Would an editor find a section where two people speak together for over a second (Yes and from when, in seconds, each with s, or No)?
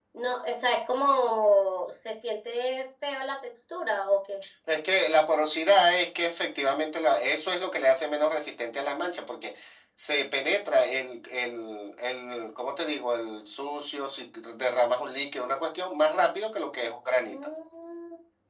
No